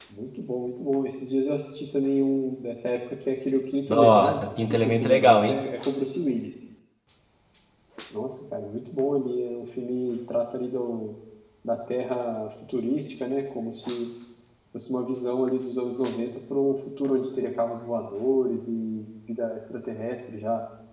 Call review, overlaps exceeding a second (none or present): present